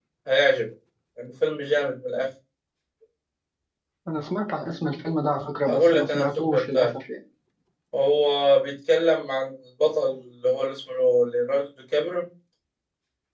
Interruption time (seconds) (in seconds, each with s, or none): 5.7 s